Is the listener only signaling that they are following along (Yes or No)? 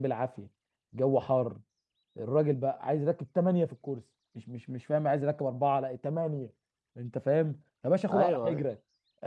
Yes